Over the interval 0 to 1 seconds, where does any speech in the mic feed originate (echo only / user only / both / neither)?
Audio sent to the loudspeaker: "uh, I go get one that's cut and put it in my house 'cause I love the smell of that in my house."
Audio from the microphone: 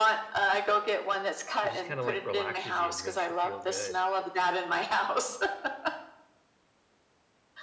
echo only